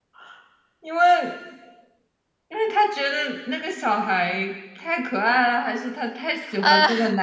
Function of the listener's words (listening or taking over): listening